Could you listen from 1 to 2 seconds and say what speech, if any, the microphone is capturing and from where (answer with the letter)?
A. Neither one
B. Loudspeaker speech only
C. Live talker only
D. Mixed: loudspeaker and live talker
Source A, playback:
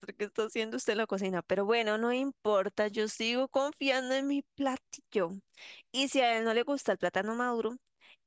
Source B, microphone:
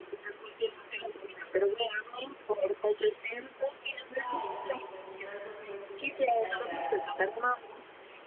B